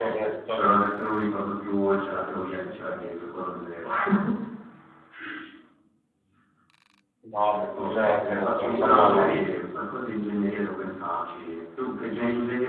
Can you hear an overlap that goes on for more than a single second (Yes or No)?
Yes